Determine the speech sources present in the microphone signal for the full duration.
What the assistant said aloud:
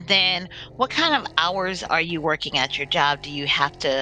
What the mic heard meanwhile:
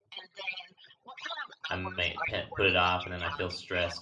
both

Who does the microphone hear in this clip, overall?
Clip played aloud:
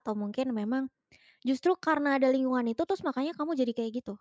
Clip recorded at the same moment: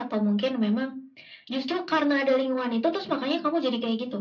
echo only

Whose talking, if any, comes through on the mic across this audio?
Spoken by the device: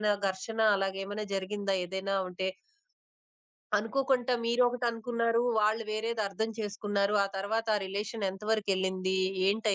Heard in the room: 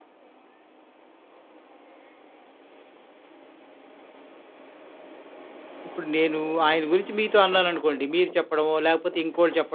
user only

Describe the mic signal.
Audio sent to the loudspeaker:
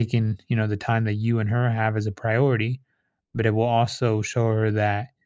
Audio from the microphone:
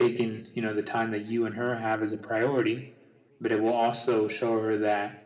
echo only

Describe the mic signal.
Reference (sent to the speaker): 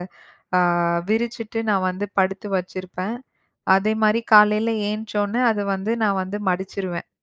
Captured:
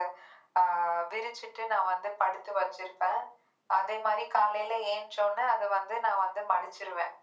echo only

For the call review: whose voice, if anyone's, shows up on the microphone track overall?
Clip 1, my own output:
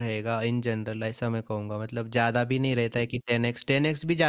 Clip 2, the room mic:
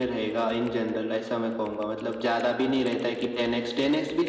echo only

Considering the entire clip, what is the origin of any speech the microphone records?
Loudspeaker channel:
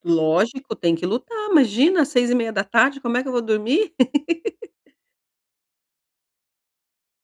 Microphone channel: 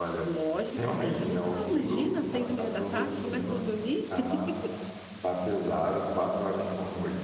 both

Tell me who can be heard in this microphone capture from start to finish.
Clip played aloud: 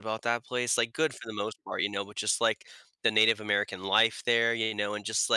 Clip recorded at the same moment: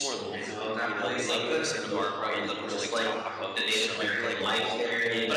both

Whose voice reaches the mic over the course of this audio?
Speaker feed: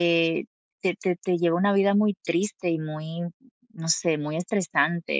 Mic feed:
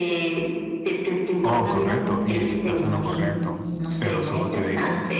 both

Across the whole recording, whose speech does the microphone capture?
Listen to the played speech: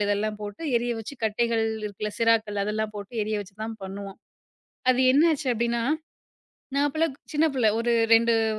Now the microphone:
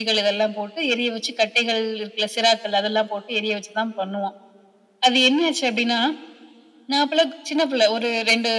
echo only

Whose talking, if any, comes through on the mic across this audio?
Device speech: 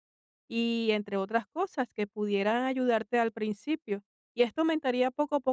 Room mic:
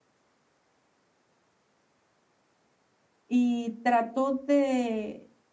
user only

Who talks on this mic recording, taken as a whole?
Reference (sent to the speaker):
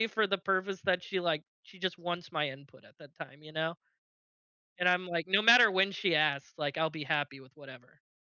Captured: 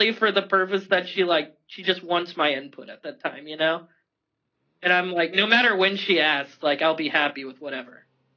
echo only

